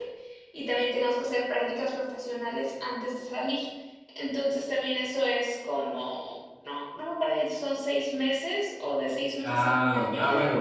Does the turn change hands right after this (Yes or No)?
Yes